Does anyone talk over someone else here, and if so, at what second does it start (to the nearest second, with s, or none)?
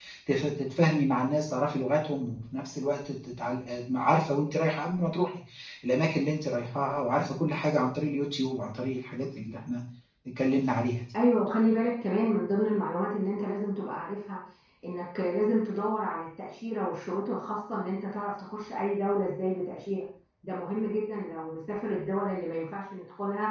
none